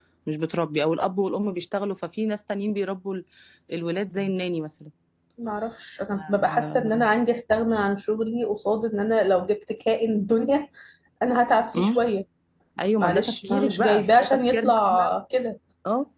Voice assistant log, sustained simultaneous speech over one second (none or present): present